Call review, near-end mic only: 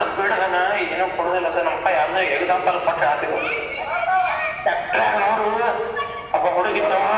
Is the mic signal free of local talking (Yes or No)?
Yes